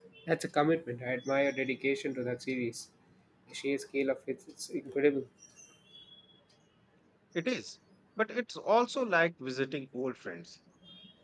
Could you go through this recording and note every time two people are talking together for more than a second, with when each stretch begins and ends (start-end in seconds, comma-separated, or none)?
none